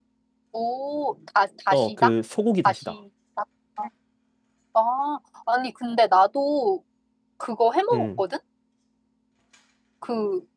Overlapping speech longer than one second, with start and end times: none

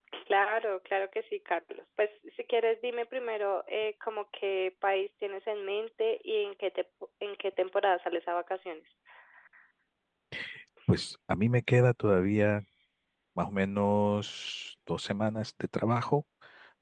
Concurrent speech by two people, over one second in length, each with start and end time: none

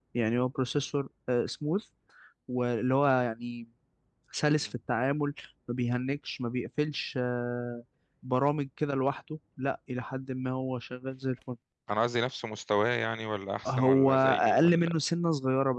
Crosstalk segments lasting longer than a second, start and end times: 13.7-15.0

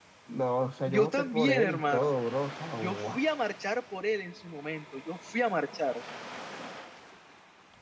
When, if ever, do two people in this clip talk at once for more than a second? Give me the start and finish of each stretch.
0.8-2.1

